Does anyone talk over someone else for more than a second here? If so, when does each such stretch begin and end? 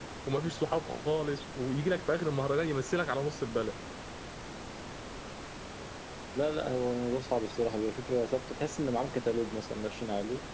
none

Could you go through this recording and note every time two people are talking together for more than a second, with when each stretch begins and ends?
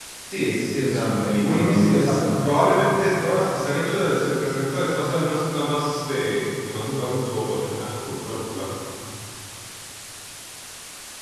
0.8-2.6

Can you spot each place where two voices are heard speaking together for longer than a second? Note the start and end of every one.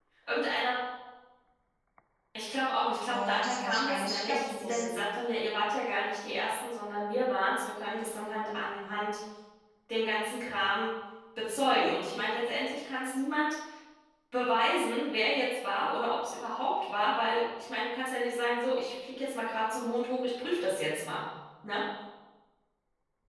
3.1-5.0

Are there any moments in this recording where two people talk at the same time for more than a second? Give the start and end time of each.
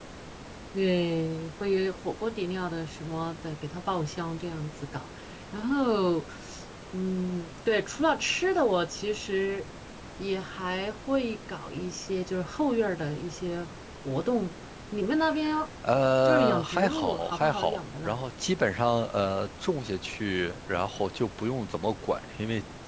16.2-18.2

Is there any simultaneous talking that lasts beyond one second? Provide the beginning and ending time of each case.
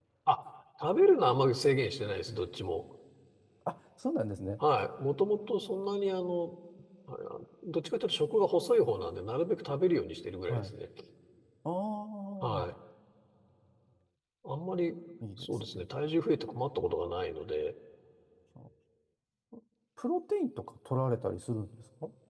none

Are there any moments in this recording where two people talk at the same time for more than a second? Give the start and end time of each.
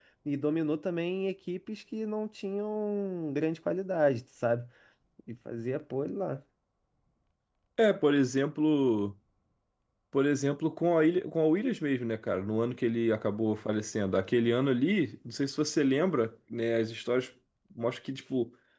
none

